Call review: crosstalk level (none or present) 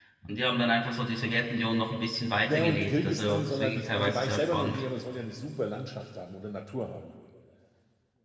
present